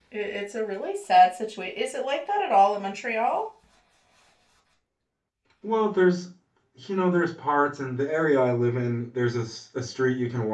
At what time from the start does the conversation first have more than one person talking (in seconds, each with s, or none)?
none